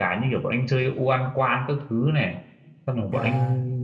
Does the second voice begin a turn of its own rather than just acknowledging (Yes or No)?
No